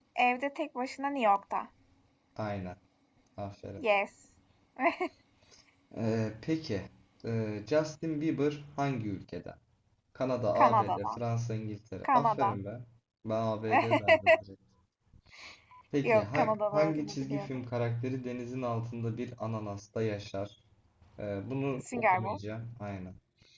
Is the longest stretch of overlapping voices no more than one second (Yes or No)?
No